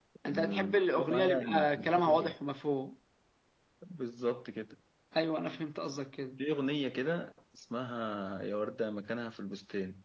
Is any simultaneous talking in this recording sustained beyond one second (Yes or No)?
Yes